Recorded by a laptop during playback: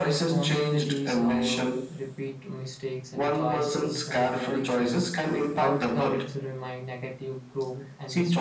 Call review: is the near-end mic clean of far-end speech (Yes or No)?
No